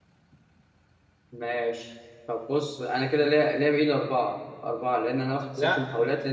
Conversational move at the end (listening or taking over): listening